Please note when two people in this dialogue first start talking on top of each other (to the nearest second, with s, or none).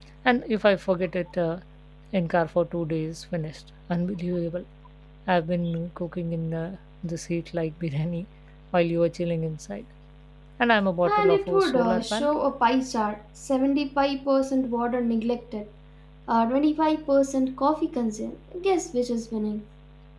11 s